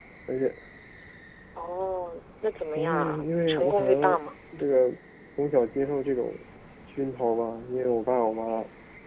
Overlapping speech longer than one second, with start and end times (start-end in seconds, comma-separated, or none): 2.8-4.2